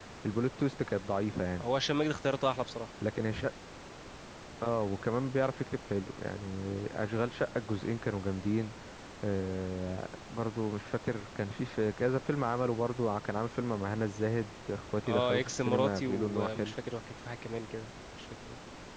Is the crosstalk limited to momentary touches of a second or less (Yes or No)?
No